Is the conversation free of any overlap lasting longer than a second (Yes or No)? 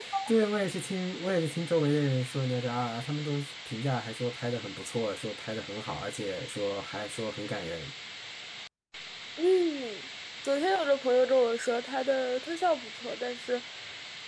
Yes